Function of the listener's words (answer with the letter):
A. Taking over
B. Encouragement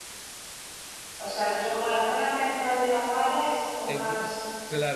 A